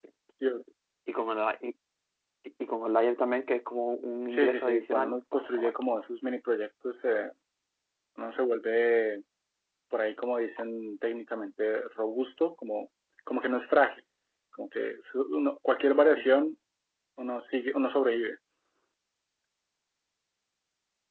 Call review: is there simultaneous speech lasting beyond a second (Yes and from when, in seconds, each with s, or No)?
Yes, from 4.3 s